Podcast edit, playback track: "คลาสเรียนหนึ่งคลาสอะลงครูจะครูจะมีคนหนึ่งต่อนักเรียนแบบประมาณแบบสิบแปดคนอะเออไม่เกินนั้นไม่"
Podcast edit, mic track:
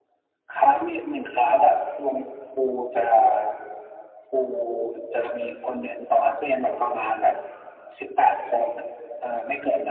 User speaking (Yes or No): No